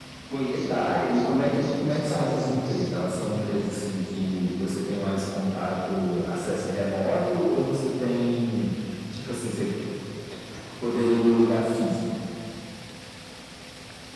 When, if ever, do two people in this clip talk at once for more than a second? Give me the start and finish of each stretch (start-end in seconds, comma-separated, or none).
0.7-3.0